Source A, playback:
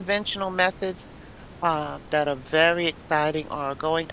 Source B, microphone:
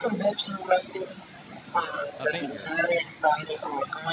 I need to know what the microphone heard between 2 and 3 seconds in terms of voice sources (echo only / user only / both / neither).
both